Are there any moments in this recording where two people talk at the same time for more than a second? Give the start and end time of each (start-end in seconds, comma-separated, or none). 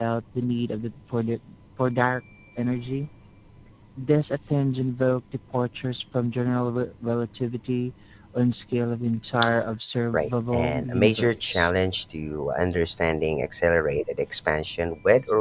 10.1-11.7